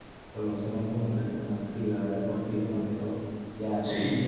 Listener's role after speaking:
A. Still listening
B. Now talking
B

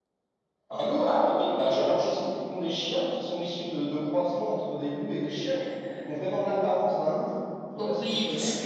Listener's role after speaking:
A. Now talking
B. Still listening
A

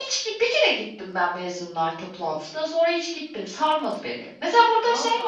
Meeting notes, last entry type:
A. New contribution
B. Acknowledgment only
B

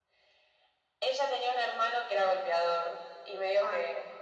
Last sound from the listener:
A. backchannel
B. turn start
A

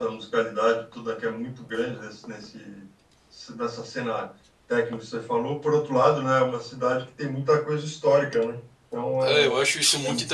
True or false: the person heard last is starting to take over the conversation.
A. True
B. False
A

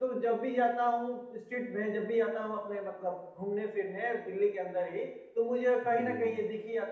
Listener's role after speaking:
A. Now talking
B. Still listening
B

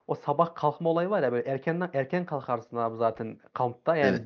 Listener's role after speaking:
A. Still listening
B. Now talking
A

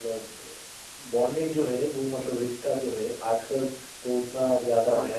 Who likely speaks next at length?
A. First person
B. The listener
A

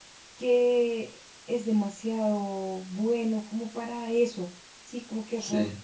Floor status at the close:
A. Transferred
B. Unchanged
B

